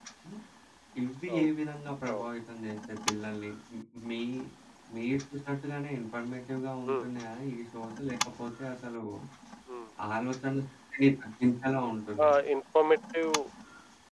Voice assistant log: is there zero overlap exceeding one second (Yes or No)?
Yes